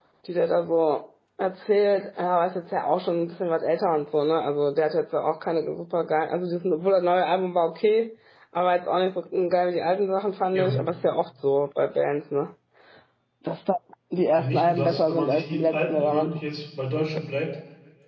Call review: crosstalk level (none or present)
present